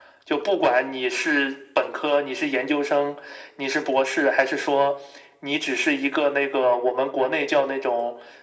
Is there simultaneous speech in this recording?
No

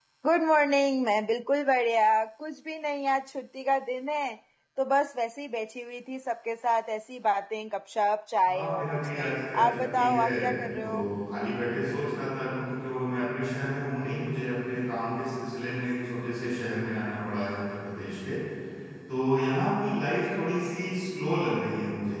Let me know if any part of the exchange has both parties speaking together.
Yes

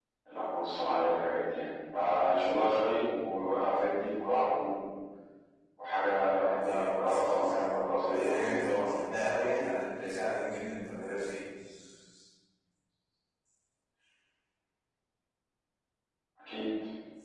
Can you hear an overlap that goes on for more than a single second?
Yes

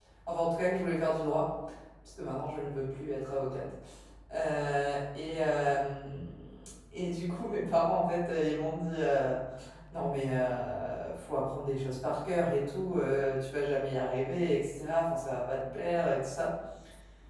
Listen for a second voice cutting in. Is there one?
No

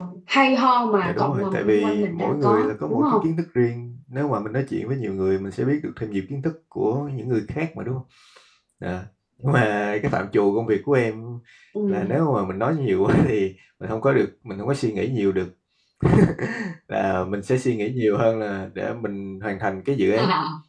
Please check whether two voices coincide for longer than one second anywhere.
Yes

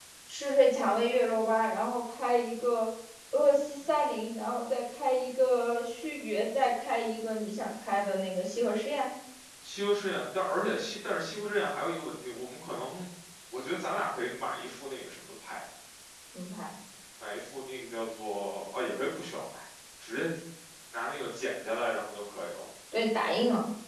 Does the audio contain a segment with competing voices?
No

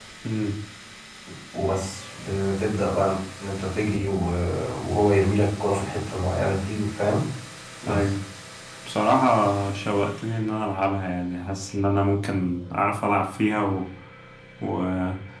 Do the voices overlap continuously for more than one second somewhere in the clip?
No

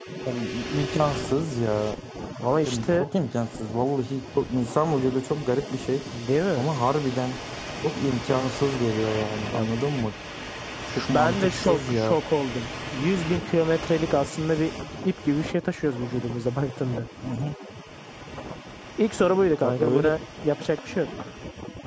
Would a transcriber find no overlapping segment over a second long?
No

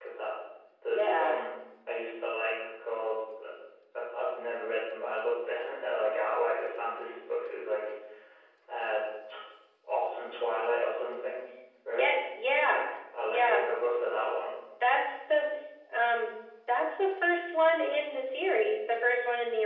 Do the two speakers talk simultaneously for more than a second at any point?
No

